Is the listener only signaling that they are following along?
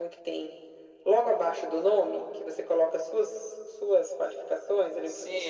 No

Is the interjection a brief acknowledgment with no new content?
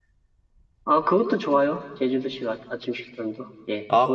No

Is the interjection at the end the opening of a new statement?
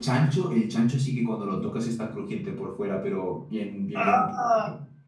No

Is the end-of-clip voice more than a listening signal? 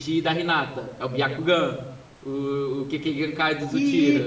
Yes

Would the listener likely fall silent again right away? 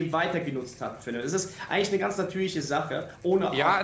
No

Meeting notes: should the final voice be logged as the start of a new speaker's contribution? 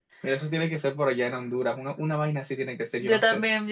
Yes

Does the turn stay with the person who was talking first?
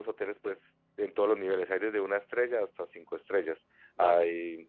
Yes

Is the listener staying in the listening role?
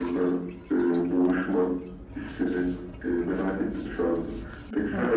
No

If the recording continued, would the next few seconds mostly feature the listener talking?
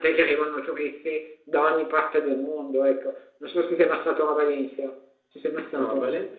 Yes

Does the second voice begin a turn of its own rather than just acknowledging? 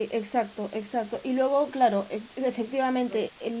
No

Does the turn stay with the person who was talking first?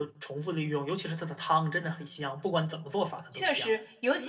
No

